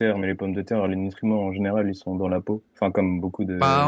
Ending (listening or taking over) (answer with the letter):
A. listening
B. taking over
B